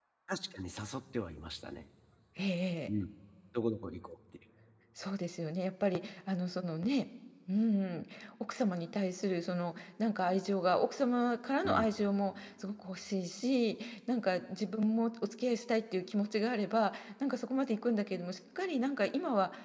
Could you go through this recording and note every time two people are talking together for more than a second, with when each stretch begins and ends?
none

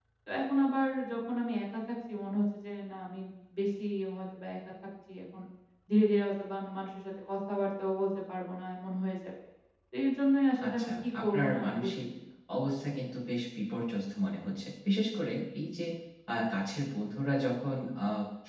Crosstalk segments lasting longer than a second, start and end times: 10.7-11.9

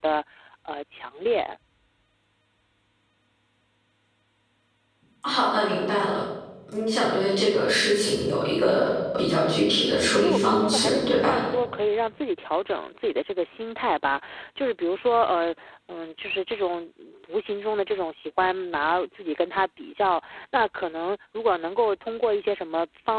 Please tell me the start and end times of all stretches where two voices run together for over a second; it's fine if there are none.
9.8-11.4

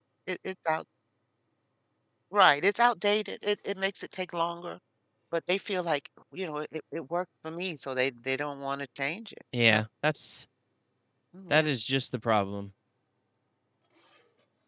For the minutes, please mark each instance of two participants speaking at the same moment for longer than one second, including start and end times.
none

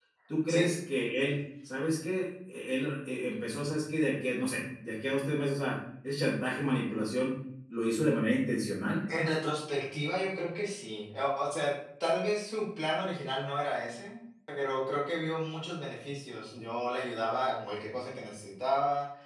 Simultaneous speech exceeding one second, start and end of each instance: none

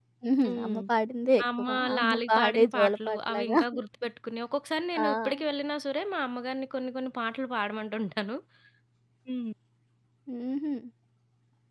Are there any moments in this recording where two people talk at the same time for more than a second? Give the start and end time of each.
1.6-3.6

